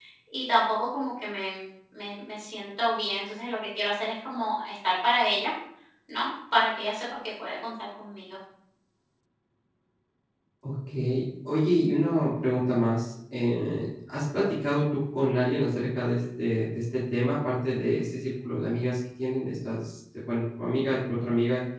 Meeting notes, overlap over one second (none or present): none